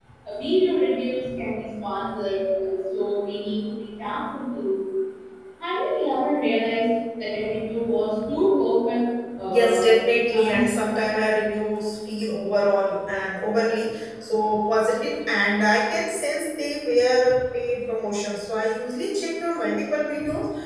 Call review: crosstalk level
present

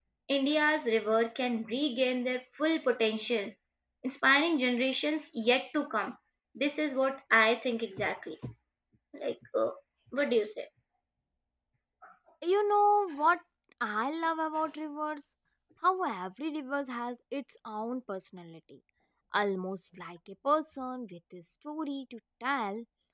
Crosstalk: none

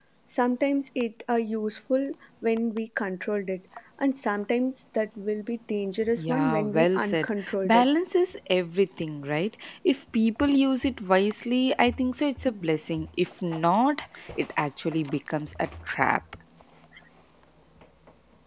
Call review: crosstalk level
present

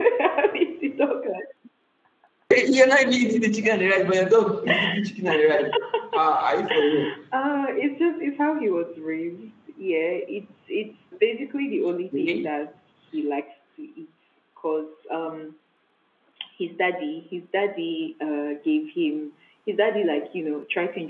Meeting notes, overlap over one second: none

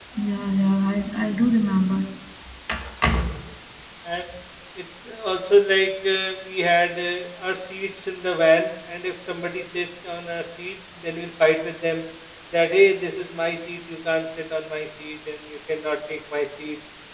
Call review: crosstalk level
none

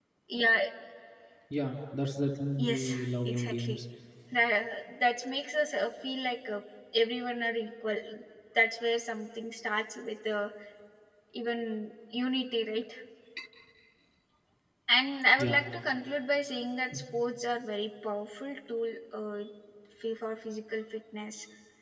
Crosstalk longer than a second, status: present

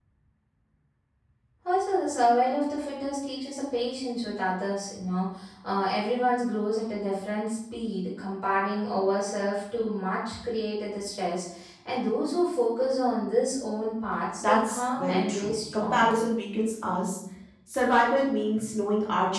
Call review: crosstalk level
present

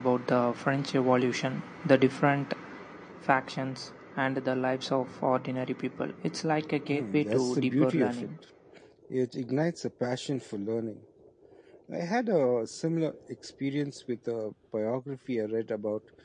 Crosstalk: present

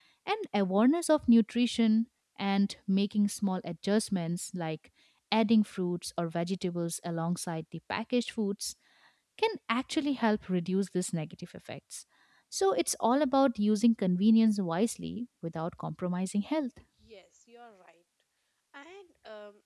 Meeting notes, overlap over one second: none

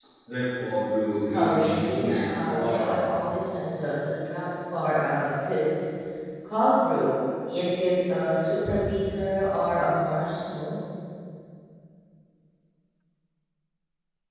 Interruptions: present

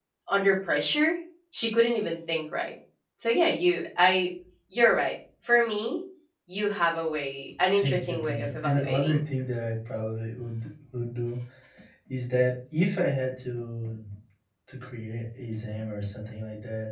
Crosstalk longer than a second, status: present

